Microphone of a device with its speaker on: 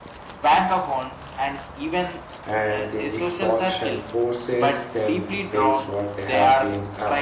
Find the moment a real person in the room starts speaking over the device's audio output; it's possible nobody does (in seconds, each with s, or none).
2.5 s